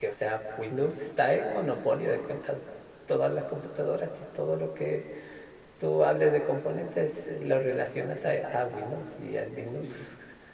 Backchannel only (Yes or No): No